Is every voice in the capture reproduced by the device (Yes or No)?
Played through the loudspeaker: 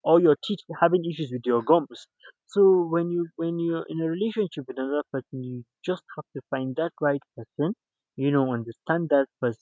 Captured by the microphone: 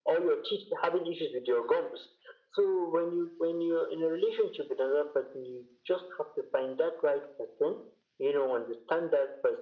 Yes